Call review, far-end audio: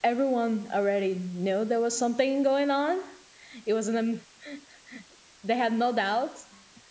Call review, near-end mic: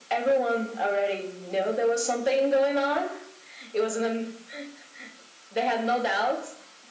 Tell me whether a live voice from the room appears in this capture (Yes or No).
No